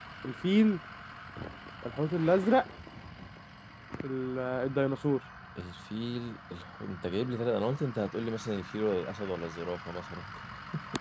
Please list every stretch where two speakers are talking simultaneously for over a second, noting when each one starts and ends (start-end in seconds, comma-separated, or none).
none